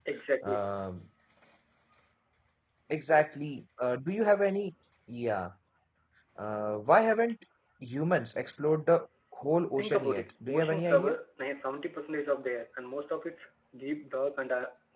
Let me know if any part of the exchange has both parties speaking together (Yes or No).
Yes